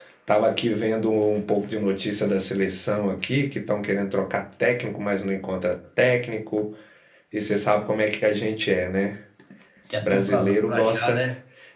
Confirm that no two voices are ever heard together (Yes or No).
No